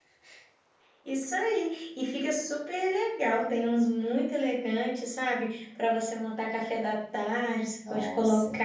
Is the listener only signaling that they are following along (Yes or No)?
Yes